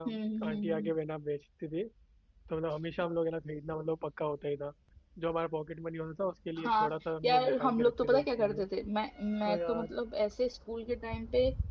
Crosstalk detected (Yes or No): Yes